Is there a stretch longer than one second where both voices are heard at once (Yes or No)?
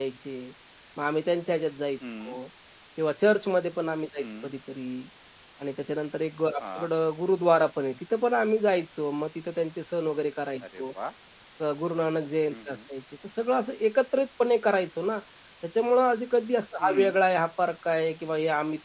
No